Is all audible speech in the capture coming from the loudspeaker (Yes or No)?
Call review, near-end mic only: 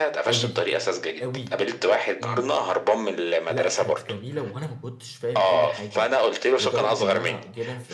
No